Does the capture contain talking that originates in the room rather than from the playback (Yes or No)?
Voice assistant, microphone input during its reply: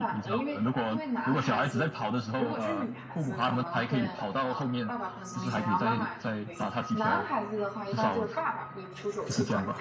Yes